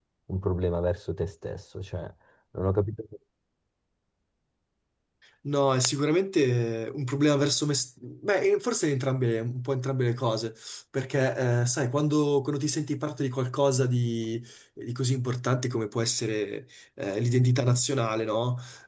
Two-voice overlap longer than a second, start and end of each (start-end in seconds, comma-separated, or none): none